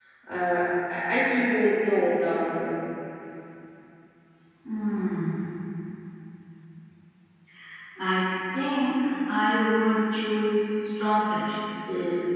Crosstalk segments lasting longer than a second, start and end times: none

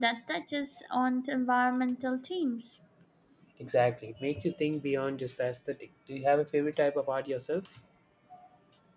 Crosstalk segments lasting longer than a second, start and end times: none

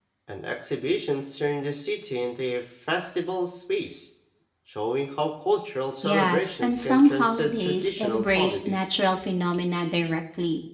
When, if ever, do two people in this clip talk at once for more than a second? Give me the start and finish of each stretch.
6.0-8.9

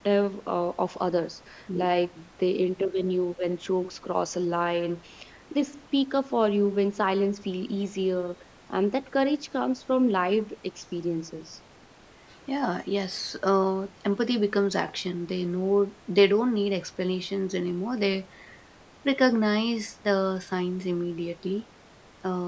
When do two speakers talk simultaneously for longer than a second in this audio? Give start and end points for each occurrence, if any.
none

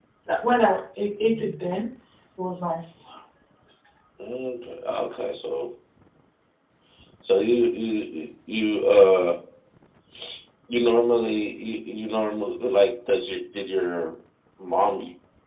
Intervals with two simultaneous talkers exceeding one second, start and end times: none

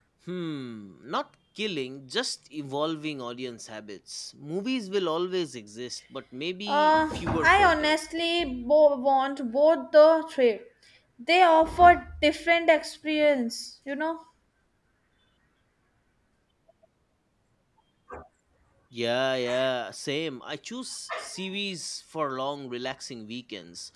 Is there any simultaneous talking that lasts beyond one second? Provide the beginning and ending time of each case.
6.7-8.0

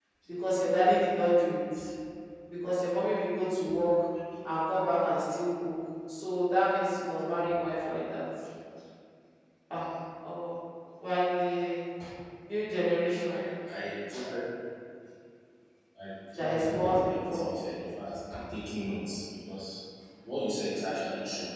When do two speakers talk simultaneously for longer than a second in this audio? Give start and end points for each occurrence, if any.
16.3-17.6

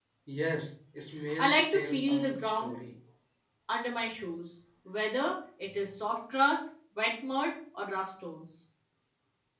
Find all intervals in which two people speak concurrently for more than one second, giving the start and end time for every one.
1.4-2.8

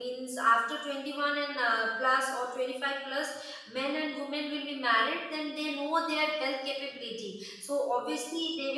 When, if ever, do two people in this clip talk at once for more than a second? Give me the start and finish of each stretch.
none

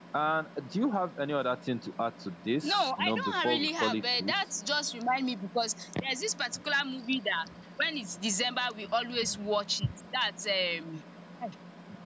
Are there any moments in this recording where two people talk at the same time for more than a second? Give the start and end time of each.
2.6-4.3

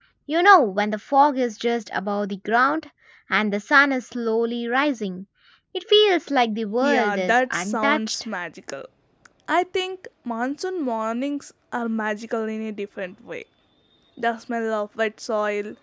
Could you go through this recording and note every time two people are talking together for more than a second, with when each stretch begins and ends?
6.8-8.2

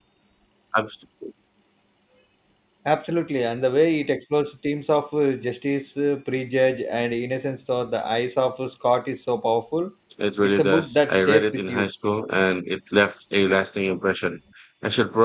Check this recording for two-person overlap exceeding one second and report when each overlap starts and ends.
10.4-11.9

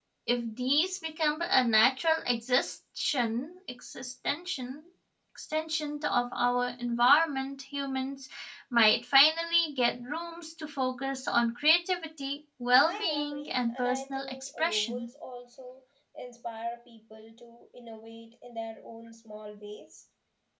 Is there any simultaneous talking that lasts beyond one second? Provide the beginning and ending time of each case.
12.9-15.1

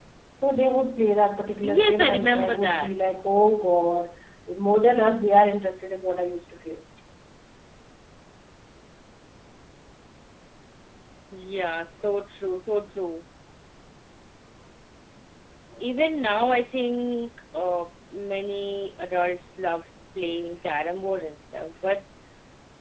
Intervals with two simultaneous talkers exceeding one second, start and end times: 1.6-2.9

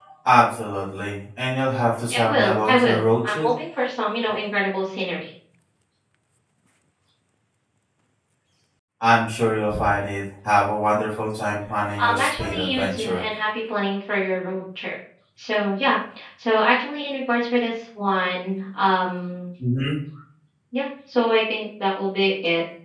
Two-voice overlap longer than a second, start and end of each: 2.1-3.5, 12.0-13.2

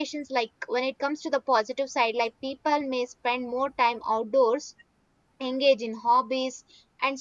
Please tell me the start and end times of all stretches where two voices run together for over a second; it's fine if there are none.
none

